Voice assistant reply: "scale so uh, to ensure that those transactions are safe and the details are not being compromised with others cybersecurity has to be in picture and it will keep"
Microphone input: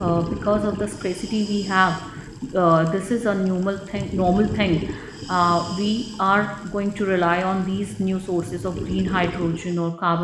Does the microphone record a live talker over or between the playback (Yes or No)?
Yes